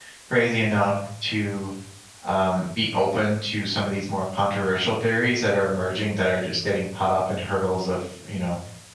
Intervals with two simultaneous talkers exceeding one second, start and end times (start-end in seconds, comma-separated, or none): none